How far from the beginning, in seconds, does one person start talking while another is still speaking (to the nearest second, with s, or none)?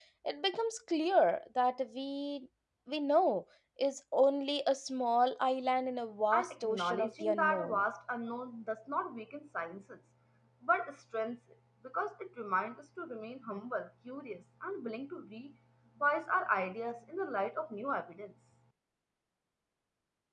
6 s